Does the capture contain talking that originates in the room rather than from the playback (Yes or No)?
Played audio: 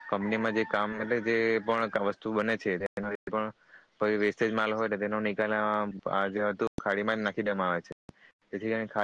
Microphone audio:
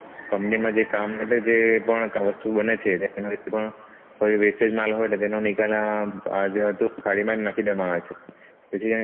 No